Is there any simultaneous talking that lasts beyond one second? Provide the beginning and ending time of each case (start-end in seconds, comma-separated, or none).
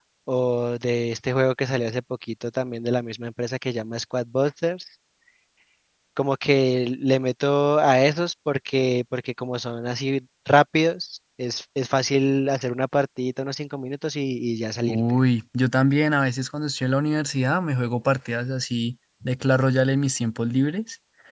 none